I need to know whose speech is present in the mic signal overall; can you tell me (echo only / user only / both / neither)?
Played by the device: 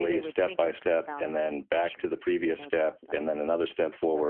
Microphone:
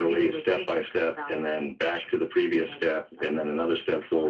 echo only